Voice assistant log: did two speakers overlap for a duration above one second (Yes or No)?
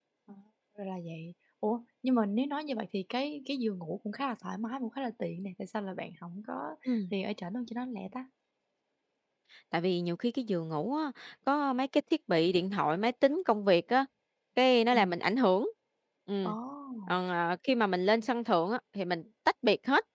No